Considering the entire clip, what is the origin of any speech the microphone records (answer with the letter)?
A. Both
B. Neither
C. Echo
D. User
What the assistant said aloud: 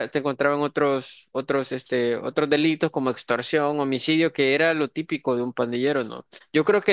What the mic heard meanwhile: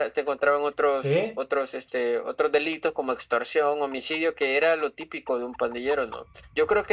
A